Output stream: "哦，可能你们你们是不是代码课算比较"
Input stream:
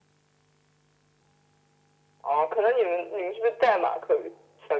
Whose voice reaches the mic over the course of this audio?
echo only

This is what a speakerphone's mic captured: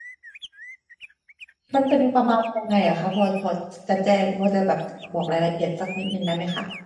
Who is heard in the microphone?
user only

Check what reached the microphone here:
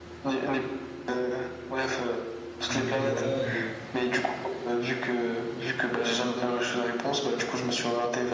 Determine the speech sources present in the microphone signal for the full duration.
both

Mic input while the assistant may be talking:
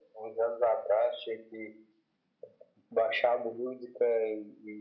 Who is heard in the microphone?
echo only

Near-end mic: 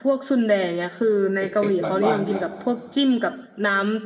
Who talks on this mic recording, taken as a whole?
both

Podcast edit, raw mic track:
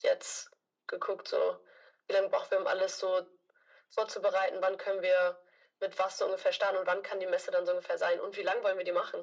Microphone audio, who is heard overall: echo only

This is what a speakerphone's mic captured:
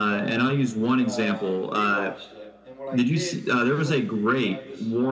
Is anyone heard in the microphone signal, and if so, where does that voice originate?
both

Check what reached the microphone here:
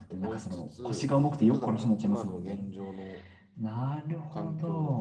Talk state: both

